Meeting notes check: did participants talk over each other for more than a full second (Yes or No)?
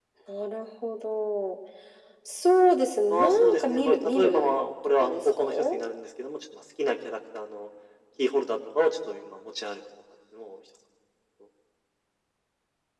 Yes